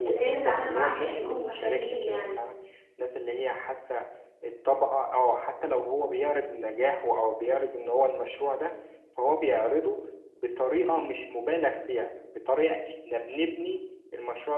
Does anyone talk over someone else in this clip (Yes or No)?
Yes